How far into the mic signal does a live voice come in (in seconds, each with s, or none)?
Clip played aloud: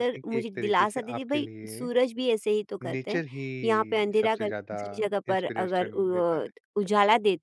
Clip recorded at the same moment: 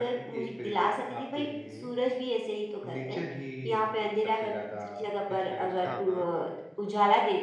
5.8 s